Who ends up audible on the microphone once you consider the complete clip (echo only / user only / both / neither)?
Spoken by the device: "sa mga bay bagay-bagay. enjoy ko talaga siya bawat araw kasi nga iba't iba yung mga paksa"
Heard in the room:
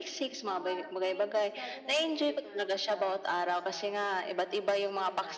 both